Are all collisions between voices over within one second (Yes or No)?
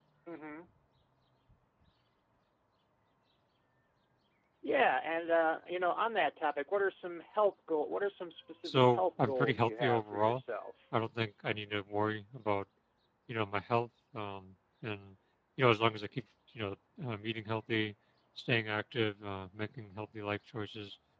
No